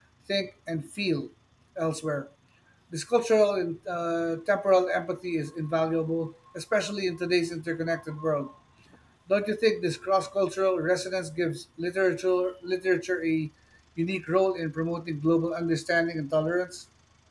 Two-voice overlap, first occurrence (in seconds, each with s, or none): none